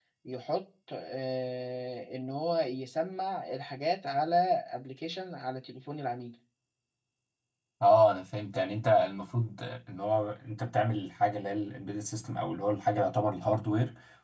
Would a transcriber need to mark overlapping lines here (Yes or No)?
No